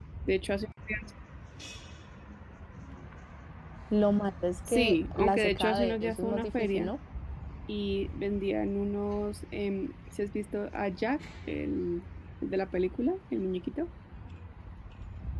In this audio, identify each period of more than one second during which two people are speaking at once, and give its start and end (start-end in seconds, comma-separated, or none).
4.7-6.9